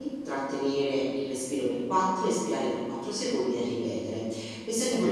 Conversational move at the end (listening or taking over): taking over